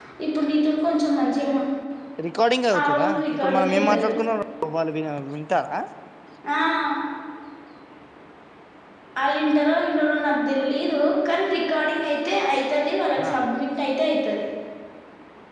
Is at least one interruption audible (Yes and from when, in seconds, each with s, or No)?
Yes, from 2.8 s